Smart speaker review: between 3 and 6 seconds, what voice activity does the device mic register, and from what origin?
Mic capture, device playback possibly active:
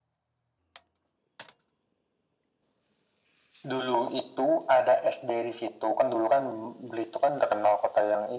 echo only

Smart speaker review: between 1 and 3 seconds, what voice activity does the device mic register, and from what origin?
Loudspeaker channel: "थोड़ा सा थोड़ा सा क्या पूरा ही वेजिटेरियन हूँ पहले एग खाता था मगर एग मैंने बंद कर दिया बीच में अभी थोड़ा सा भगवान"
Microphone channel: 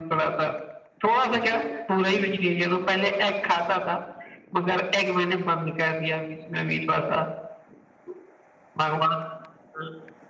both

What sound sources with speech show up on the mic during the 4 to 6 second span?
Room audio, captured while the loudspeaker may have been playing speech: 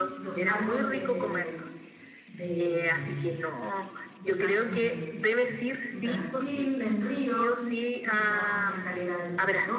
both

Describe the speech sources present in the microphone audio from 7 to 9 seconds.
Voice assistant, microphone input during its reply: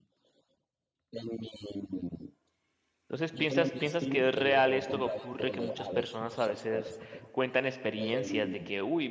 both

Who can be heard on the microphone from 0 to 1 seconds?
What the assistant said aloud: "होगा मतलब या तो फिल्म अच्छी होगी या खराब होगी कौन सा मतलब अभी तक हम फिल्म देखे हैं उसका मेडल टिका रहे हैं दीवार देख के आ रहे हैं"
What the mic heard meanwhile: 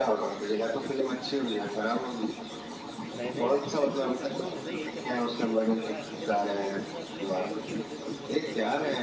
echo only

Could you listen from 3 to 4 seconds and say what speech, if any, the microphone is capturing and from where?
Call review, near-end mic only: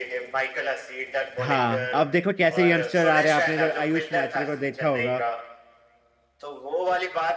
both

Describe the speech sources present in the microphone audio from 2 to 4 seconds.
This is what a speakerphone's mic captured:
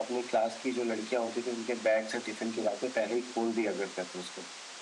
echo only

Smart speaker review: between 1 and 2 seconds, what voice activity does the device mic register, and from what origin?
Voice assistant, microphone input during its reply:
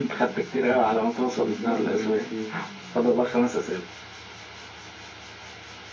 both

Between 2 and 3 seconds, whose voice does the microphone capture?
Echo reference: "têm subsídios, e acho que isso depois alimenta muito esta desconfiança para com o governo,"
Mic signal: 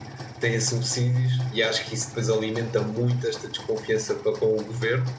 echo only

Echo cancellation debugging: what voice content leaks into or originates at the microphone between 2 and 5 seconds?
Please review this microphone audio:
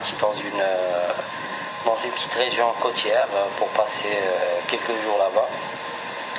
echo only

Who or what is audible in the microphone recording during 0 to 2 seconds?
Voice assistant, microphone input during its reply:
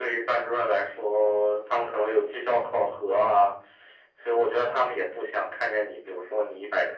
echo only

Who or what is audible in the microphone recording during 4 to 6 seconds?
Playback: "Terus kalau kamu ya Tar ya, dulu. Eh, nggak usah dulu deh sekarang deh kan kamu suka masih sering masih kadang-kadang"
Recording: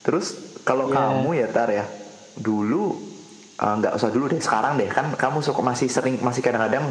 echo only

